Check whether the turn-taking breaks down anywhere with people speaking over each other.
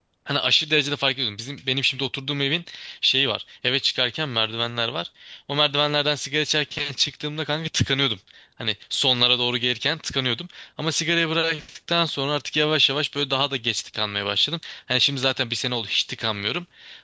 No

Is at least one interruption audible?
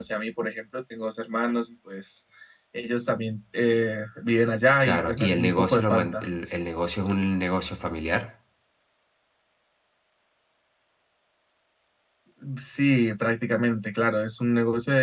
Yes, from 4.8 s

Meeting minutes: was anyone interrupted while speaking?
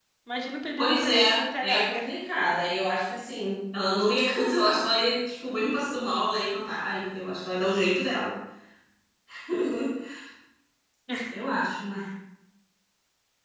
Yes, from 0.8 s

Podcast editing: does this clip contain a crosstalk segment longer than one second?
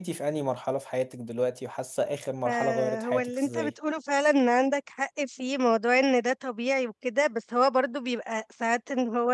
Yes, from 2.4 s

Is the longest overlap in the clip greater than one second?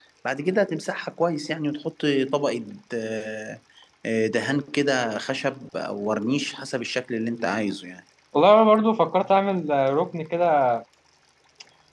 No

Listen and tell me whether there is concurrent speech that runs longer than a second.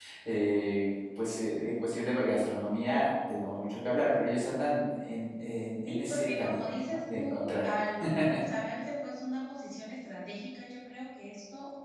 Yes, from 5.9 s

